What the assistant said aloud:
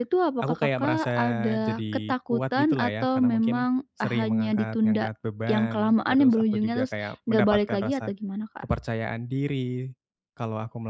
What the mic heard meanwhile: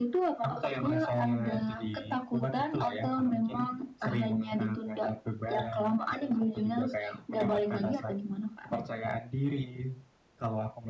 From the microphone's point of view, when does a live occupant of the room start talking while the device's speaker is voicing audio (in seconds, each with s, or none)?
none